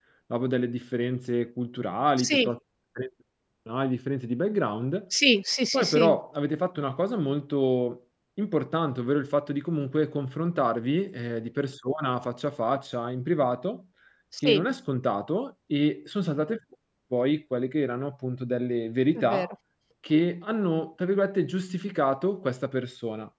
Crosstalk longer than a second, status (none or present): none